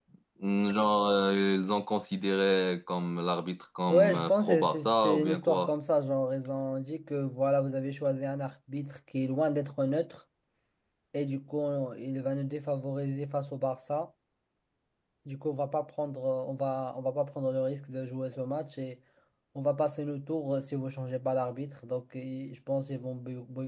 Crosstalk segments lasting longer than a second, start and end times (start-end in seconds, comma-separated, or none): 3.9-5.7